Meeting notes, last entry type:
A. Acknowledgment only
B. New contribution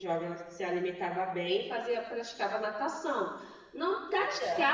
A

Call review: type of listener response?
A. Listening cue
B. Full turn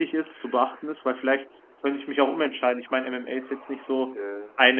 A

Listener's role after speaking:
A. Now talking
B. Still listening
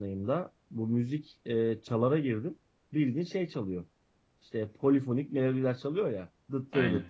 B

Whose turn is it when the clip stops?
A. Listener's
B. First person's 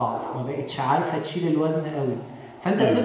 B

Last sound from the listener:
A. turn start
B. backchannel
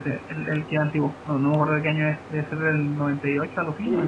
A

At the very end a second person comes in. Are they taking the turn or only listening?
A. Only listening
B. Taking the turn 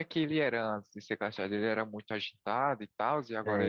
B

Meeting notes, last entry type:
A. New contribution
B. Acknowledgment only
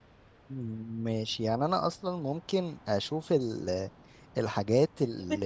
A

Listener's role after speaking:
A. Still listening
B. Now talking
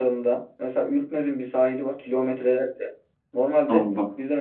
A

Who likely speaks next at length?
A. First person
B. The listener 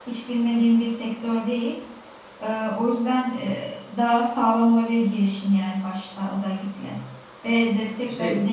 A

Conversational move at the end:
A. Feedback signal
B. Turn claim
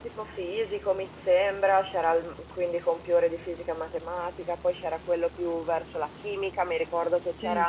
A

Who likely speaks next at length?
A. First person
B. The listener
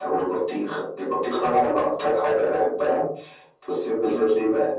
A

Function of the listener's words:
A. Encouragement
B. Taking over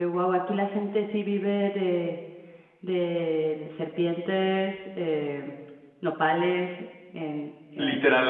B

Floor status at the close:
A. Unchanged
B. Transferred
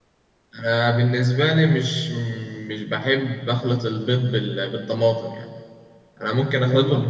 A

